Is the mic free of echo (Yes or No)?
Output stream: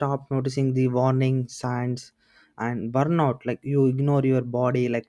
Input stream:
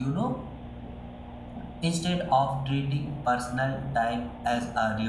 Yes